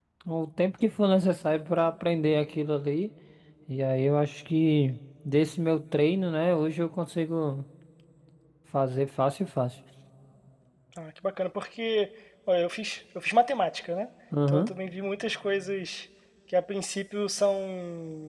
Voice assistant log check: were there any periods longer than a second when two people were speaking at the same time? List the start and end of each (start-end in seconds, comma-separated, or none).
none